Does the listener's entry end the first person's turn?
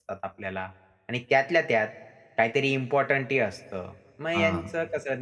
No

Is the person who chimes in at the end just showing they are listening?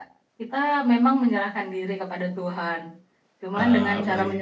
Yes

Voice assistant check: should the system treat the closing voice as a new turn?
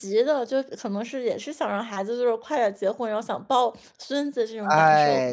Yes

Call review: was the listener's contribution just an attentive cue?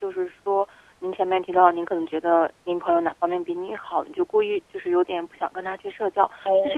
Yes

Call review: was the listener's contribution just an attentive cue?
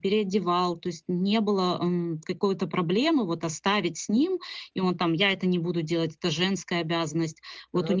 Yes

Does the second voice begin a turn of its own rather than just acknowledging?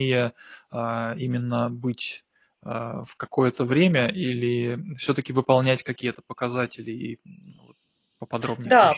Yes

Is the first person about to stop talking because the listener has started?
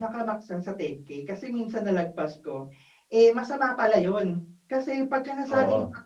No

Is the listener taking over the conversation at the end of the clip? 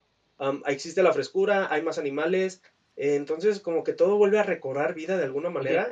Yes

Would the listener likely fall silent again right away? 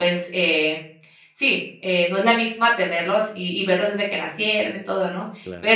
Yes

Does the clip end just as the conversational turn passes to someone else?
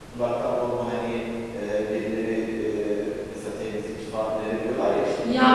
Yes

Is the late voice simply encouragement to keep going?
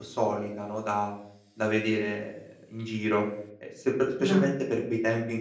Yes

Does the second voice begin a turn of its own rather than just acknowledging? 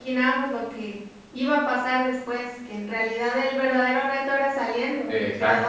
Yes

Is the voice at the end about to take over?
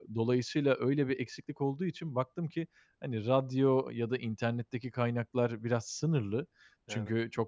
No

